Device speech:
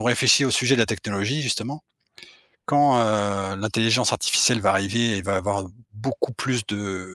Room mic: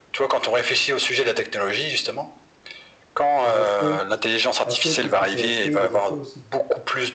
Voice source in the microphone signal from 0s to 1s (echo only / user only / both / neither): echo only